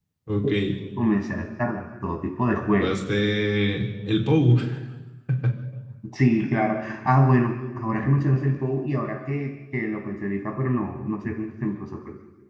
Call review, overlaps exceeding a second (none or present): none